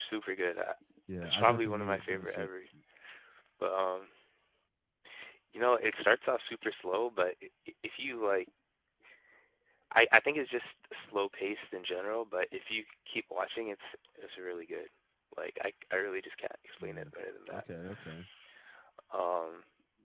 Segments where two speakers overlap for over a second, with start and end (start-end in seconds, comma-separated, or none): 1.2-2.5